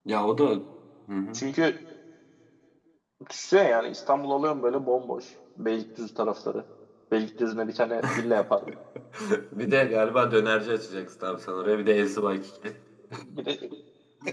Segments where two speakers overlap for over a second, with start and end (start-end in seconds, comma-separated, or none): none